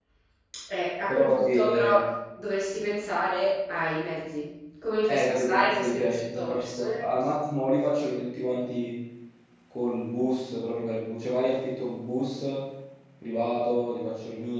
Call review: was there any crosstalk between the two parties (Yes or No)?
Yes